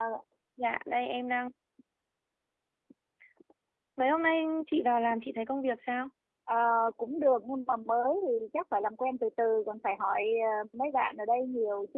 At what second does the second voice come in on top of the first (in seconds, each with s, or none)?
none